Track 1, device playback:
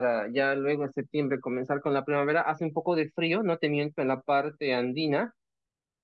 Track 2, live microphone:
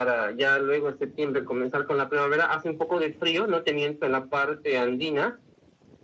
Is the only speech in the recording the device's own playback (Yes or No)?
Yes